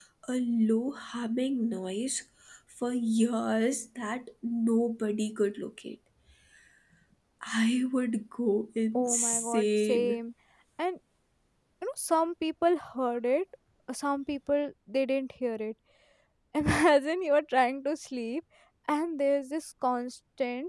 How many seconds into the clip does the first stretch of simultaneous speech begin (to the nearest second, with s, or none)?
9 s